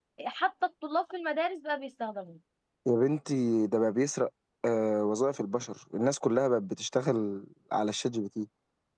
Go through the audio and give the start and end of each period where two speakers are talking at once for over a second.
none

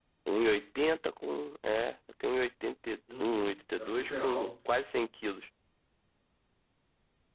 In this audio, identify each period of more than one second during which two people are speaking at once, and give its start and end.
3.2-4.5

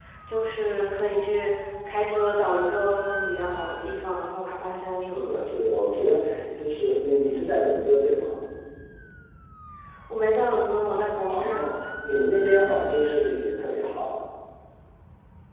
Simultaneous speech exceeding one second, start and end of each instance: none

